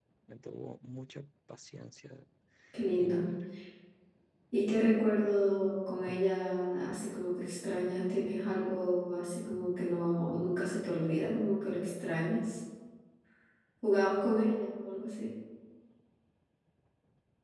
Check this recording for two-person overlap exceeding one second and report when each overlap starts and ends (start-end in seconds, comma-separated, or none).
none